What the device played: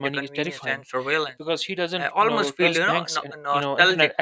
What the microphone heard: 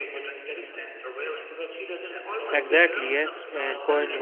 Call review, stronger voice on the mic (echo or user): user